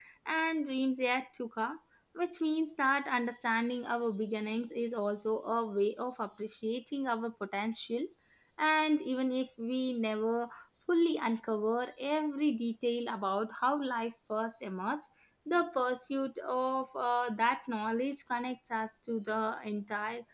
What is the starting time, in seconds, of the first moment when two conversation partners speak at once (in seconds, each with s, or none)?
none